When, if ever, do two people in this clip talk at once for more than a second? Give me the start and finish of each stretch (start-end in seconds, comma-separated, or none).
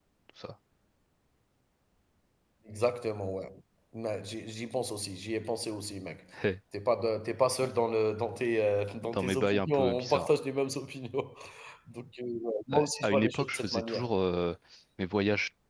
9.0-10.4, 12.7-14.1